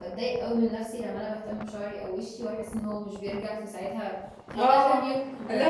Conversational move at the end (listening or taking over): taking over